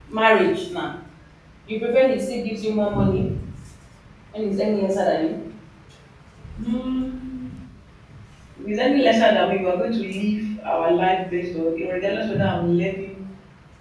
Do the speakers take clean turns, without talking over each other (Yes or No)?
Yes